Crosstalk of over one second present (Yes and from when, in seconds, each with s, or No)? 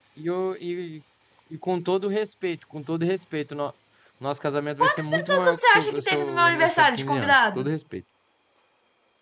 Yes, from 4.8 s